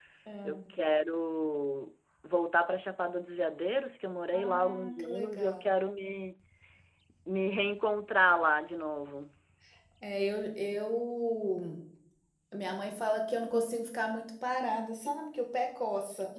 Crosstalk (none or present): present